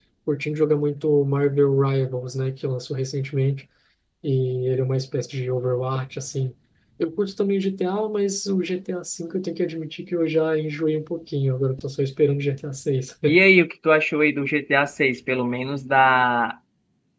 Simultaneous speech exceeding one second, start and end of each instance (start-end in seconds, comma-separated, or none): none